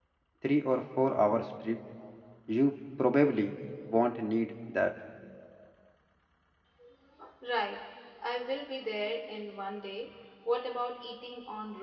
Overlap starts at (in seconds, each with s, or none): none